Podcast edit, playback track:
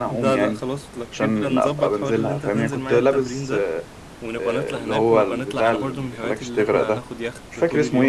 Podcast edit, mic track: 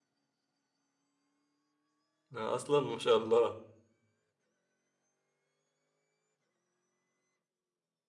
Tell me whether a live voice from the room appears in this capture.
Yes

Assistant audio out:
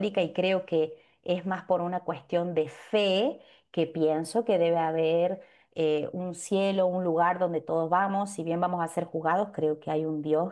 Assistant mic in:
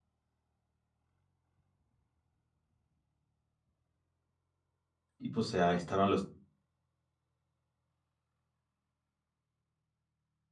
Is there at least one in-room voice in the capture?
Yes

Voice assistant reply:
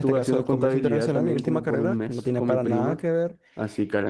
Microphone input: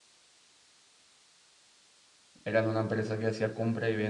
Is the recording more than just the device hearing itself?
Yes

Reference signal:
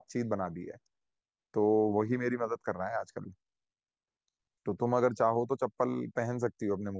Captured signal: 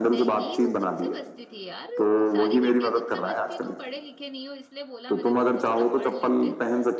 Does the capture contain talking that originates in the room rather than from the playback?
Yes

